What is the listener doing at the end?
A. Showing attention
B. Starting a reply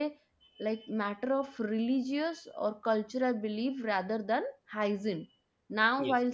A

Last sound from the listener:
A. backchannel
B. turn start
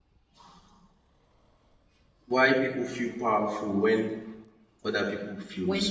B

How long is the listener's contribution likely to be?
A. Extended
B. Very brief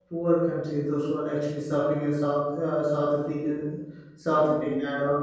B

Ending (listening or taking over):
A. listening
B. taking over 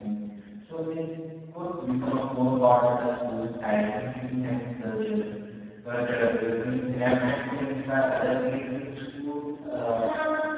B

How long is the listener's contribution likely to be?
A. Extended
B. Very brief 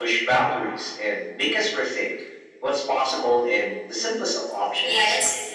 A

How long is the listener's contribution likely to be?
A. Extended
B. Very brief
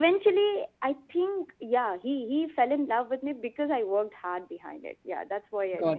A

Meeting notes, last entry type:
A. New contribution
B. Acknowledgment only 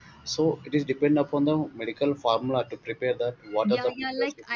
A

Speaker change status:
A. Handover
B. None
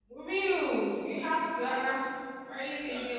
B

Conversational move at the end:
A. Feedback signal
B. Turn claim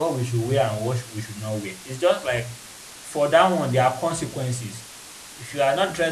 A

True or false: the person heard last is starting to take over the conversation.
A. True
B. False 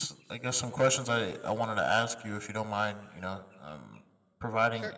B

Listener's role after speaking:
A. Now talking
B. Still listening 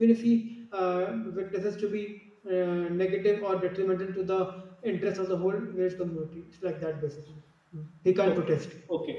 A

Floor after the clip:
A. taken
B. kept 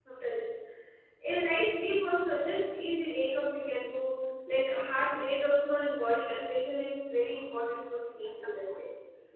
A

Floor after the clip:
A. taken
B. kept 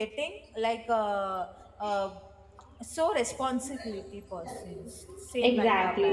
A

